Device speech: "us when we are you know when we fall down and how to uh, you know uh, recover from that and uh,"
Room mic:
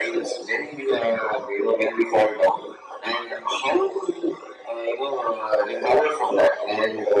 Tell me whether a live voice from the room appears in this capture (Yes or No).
No